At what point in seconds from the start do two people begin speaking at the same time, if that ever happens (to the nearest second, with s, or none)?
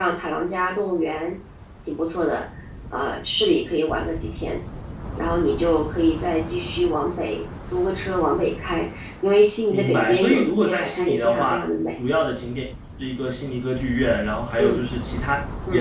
10 s